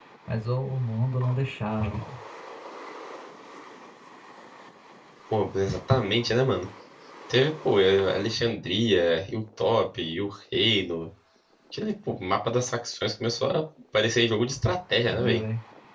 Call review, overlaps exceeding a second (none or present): none